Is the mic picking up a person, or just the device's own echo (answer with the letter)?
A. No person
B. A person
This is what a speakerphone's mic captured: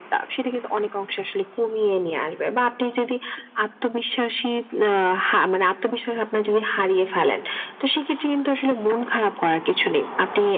A